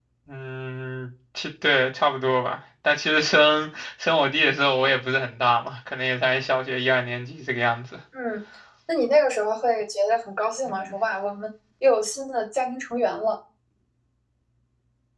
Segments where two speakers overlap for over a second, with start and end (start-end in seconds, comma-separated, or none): none